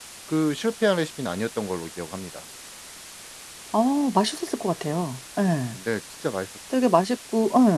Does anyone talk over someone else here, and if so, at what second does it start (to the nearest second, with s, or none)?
none